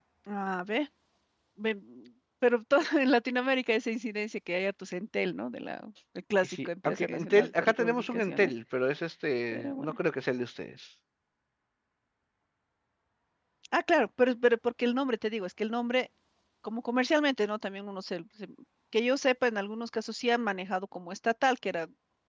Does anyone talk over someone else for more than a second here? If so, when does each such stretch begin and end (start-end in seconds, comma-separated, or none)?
6.4-8.5